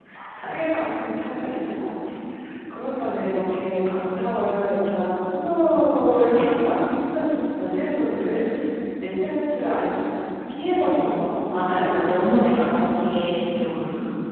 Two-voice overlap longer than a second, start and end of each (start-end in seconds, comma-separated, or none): 10.8-12.7